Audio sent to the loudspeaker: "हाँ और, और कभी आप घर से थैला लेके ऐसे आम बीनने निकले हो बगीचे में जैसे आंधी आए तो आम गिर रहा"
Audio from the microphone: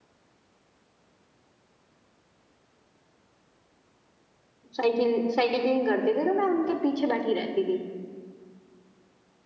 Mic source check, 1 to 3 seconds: neither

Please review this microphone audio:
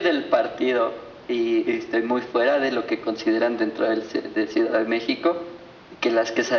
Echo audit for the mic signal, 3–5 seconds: echo only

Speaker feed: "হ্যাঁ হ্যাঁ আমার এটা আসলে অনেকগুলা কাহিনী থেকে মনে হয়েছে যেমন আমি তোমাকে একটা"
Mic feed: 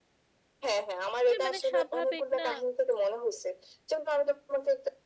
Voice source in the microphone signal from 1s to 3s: both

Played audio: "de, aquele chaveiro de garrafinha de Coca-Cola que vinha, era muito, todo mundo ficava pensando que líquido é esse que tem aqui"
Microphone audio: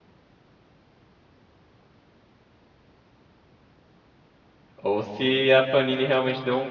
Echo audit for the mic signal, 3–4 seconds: neither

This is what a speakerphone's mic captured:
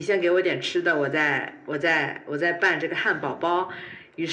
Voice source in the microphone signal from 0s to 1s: echo only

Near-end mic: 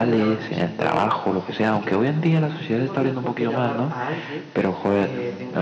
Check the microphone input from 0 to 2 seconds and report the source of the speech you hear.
both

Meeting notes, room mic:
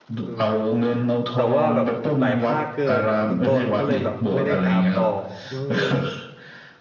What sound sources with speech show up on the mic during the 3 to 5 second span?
both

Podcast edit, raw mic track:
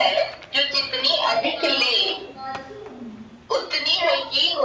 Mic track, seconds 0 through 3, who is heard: both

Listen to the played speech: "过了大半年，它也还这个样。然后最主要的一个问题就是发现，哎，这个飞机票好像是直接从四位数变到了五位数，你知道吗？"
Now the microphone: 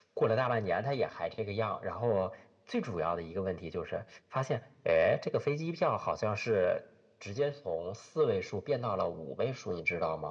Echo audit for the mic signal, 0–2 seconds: echo only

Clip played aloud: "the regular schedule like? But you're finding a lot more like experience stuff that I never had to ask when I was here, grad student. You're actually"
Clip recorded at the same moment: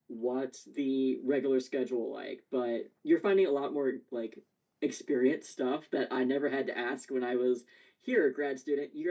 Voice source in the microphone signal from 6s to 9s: echo only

